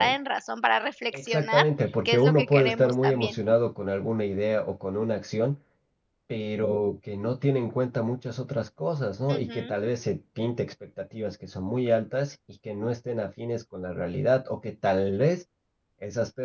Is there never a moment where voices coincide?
No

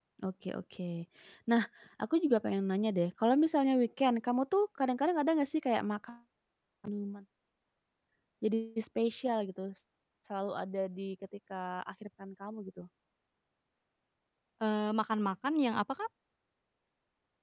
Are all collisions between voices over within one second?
Yes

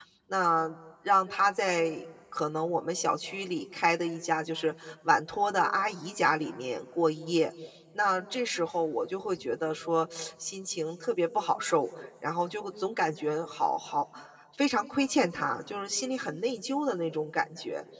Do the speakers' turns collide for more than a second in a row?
No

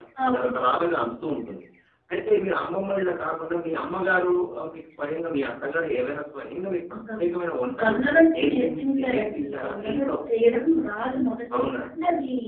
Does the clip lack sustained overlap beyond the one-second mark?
No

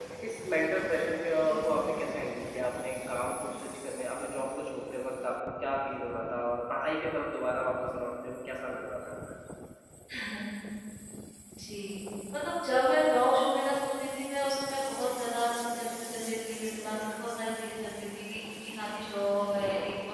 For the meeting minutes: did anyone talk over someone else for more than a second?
No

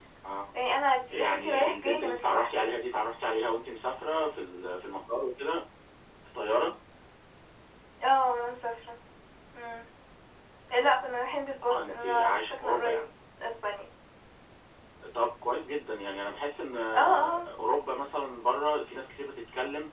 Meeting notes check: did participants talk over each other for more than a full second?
Yes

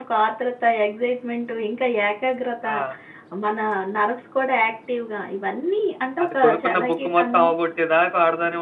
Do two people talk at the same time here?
Yes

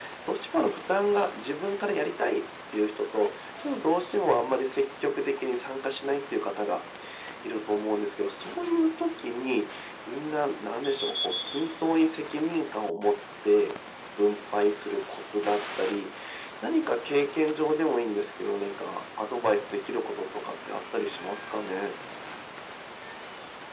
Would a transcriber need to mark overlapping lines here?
No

